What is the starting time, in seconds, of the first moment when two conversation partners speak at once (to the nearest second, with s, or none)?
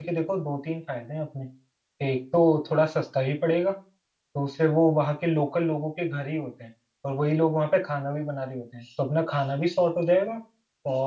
none